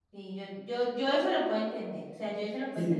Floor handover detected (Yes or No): Yes